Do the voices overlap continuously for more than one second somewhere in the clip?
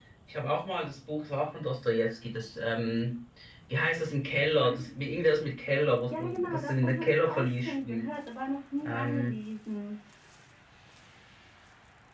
Yes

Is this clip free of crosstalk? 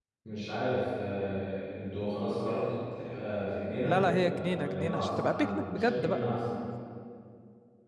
No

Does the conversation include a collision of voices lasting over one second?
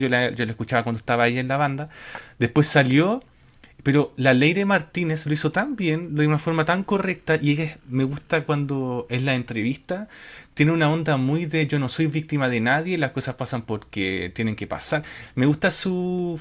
No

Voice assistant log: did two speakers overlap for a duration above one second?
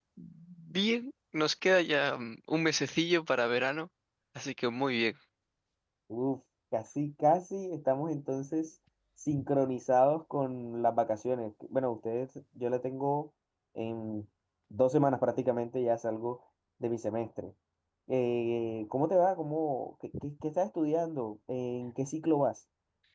No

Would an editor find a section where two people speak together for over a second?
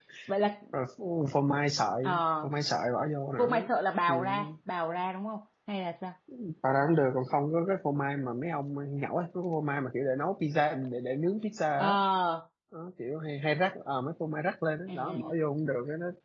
No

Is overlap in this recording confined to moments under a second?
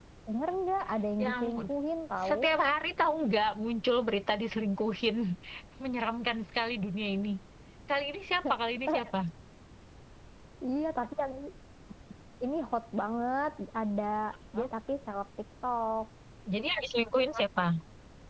Yes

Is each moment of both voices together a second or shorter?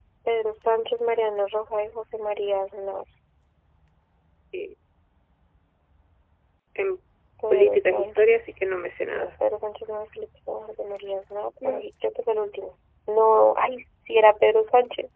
No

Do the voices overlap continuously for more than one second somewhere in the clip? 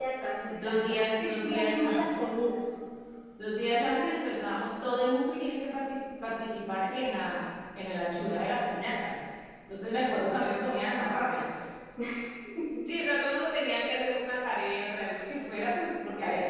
Yes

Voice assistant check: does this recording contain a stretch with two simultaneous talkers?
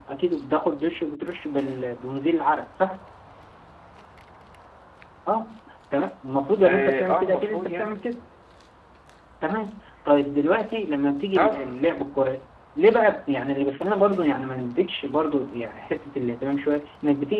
Yes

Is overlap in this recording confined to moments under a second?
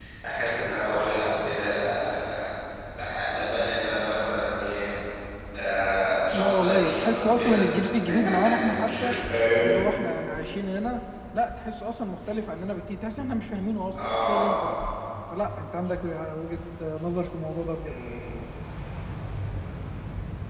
No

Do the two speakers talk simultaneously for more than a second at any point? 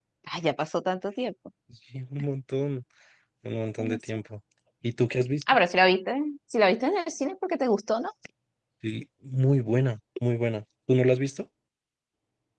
No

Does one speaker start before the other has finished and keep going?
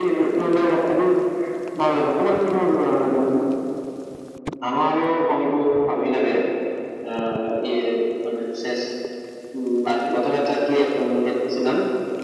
No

